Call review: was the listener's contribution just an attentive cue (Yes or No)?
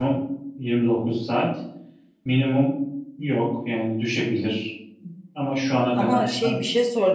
No